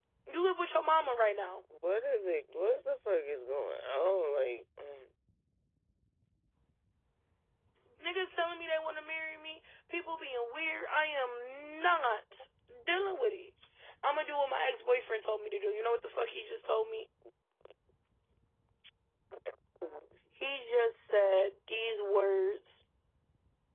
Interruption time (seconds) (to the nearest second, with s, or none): none